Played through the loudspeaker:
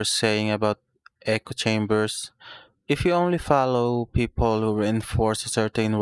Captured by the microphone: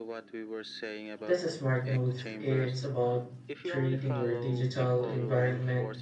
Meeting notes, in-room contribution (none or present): present